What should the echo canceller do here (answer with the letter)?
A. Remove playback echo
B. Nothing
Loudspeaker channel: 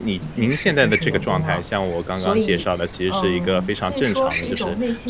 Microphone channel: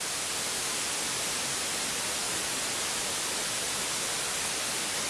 B